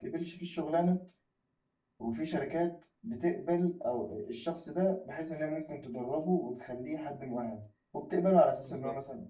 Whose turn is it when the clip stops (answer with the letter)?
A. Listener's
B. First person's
B